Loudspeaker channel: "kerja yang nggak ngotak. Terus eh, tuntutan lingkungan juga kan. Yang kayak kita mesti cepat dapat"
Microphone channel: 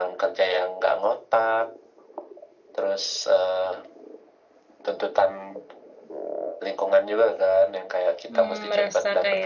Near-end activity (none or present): present